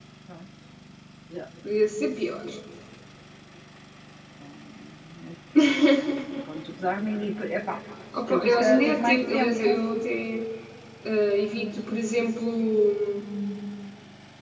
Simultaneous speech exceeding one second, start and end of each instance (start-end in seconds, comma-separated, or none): 8.3-9.8